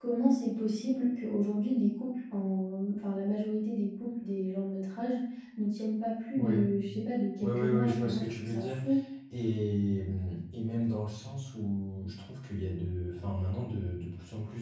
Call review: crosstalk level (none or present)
present